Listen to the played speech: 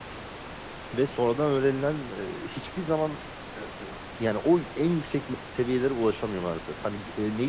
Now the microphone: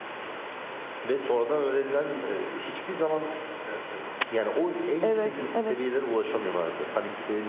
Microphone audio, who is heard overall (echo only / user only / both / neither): both